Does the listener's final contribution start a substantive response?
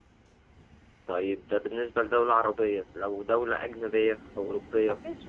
Yes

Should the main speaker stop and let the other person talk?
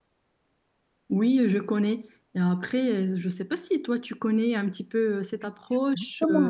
Yes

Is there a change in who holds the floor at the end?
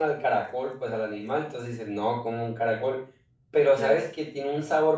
No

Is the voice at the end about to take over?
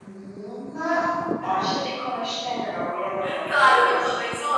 Yes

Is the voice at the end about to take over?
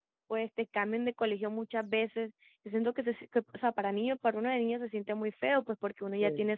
No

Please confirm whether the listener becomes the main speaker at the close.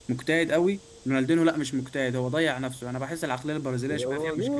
Yes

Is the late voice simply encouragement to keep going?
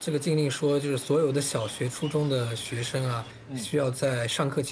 Yes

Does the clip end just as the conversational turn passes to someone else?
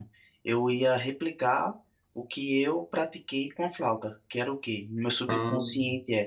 No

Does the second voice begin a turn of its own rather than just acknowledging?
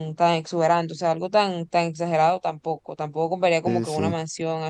No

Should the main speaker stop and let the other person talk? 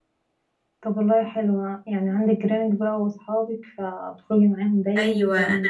Yes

